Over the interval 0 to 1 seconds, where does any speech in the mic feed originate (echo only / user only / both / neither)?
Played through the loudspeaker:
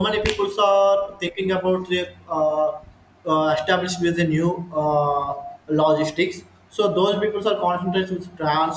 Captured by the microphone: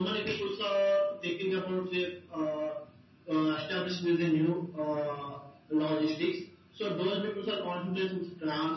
echo only